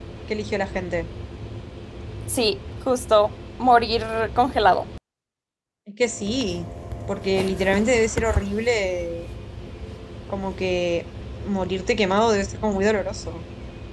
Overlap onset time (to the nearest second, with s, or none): none